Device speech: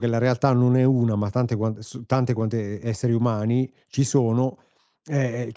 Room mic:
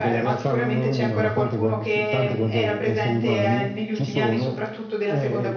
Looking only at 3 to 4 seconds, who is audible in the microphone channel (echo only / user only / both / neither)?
both